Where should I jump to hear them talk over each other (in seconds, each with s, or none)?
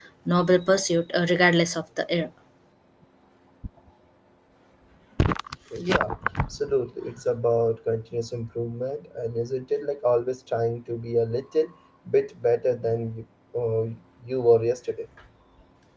none